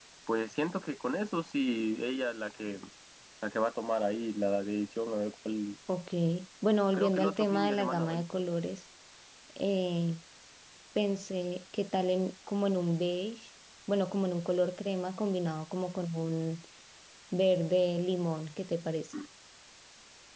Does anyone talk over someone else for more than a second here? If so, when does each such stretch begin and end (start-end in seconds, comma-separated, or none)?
6.9-8.2